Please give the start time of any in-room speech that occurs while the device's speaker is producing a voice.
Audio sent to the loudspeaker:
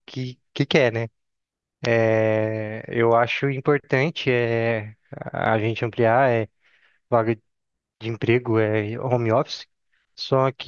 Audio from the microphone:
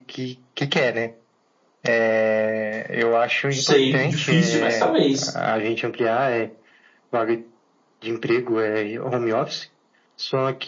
3.5 s

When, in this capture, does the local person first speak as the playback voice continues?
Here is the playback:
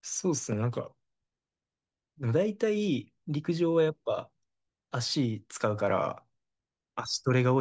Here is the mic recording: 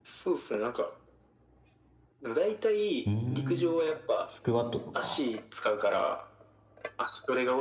3.0 s

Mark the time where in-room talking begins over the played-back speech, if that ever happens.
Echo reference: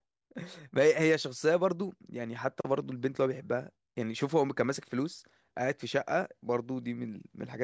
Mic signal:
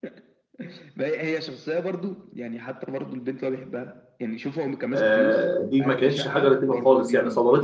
5.0 s

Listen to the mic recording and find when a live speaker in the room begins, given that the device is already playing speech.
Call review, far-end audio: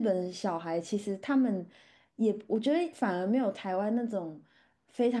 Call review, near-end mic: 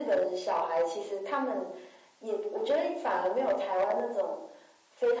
none

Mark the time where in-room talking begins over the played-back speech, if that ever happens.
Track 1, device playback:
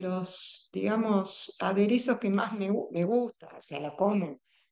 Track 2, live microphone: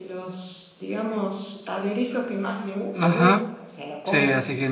2.9 s

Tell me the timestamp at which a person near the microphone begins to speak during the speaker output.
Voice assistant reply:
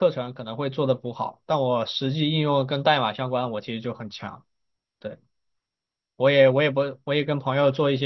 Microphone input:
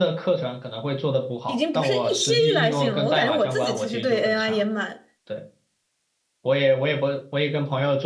1.4 s

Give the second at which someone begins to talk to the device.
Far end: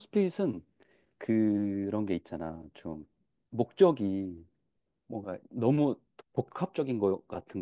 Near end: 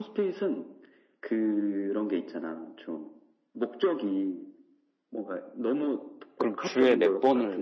6.4 s

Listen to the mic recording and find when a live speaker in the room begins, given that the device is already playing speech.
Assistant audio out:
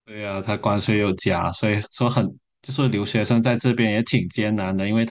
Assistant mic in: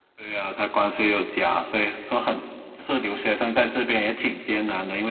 none

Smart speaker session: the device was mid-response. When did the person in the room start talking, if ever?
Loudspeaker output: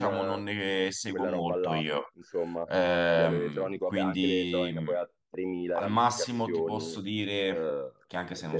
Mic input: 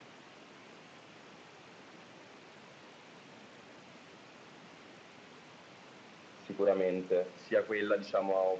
6.4 s

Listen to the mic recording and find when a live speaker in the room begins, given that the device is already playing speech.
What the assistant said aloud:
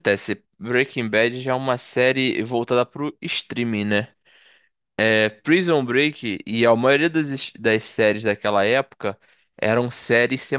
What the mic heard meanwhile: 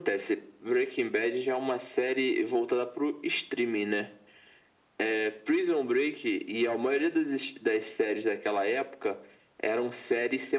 none

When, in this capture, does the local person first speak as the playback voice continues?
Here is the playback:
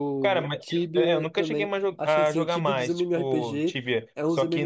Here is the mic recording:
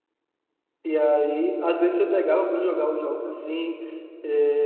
0.8 s

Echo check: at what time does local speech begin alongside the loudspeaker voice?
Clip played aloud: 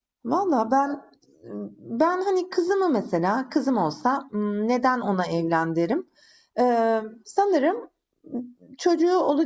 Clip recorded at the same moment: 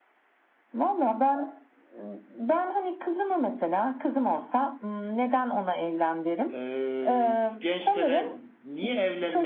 6.5 s

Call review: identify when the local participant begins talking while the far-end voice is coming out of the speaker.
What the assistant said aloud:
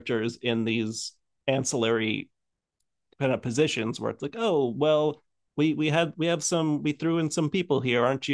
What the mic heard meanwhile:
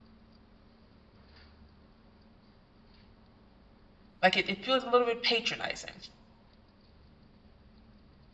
4.2 s

